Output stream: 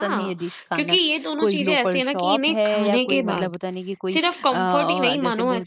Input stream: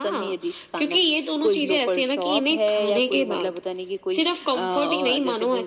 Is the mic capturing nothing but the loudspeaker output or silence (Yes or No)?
Yes